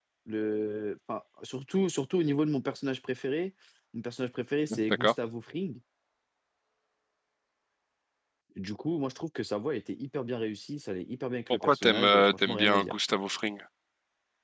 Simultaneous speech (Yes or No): Yes